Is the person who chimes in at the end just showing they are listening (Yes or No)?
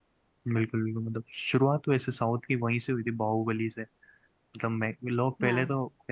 Yes